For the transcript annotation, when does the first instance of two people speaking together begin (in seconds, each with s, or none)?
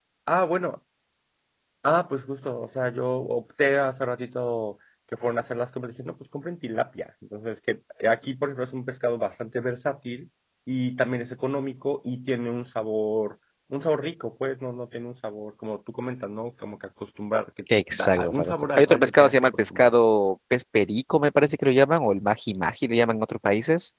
17.7 s